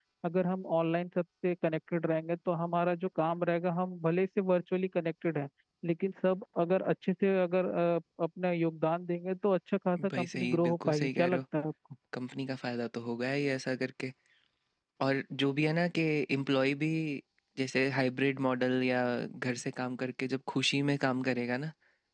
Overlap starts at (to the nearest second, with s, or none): 10 s